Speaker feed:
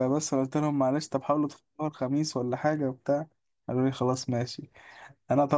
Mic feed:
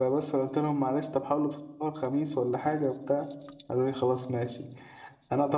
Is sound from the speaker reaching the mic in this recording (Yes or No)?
Yes